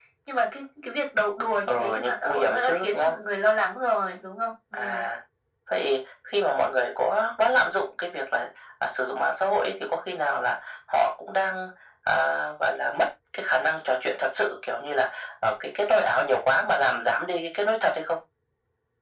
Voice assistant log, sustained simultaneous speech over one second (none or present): present